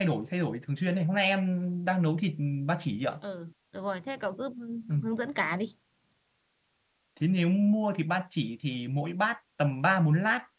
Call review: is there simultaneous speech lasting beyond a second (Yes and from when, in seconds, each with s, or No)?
No